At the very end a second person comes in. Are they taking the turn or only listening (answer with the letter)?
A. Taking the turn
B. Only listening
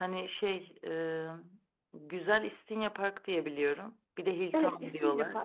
A